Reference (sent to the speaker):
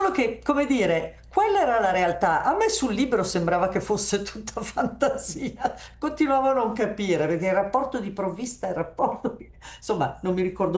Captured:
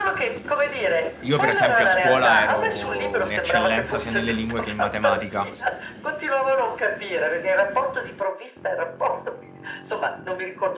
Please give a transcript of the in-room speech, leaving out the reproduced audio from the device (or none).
io per esempio a scuola ero un'eccellenza sia nelle lingue che in matematica,